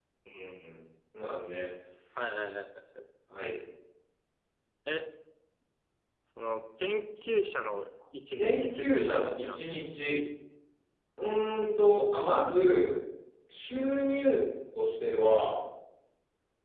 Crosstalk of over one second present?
Yes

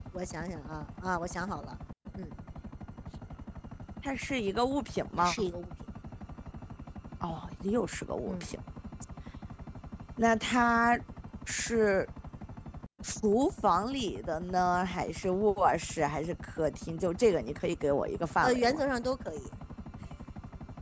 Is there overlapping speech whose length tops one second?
No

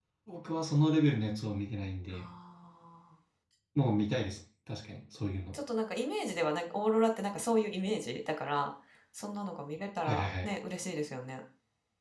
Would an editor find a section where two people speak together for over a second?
No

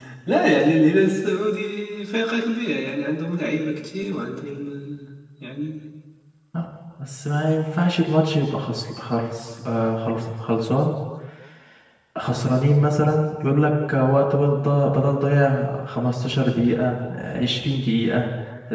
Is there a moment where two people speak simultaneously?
No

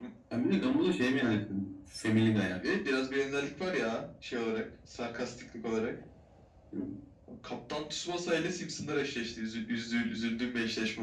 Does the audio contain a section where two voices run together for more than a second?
No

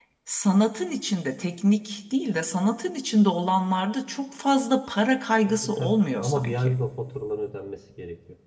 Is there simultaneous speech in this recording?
Yes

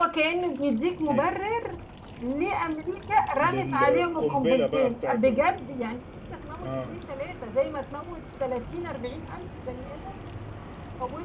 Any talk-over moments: Yes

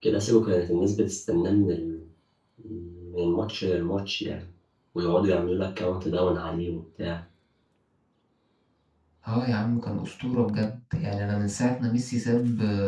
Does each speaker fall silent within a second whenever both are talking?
Yes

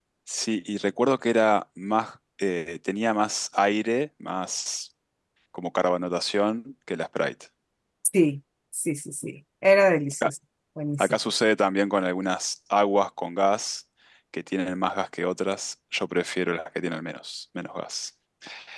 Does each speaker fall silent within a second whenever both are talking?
Yes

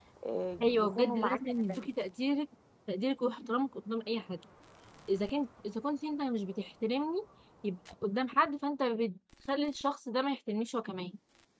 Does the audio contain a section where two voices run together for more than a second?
Yes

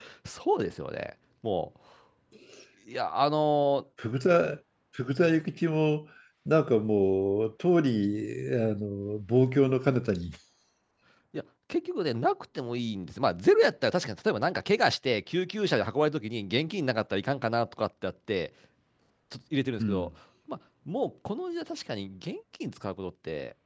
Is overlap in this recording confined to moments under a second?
Yes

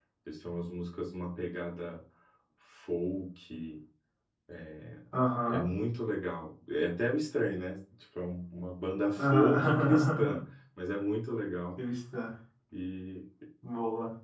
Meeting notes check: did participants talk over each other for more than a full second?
Yes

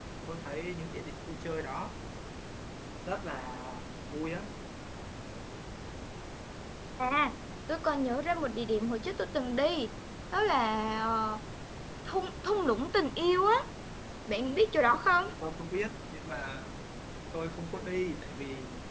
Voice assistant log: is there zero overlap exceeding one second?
Yes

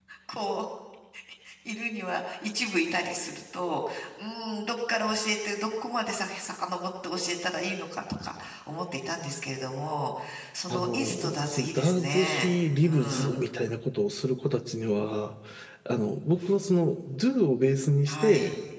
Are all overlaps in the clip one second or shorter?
No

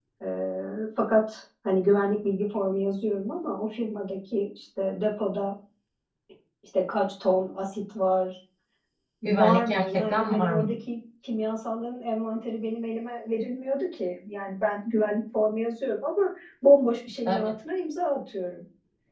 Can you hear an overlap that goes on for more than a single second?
Yes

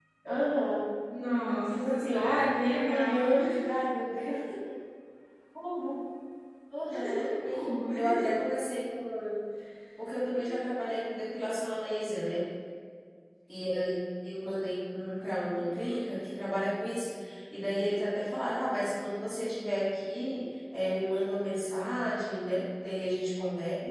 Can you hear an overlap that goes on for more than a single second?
Yes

